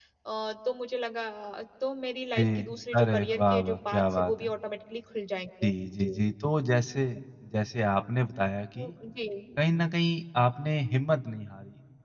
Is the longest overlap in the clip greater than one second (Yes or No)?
Yes